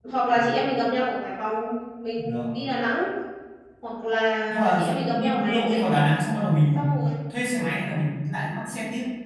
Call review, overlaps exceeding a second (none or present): present